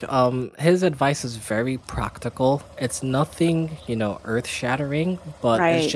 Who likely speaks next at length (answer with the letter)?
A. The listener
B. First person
B